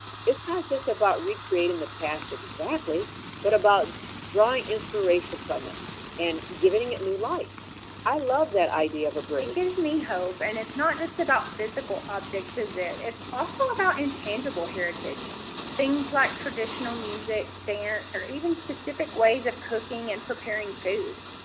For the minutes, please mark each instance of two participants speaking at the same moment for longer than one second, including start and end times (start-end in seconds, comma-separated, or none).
none